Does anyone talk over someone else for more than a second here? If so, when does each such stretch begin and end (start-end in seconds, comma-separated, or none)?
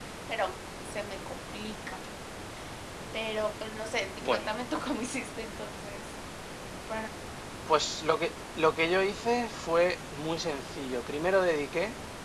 none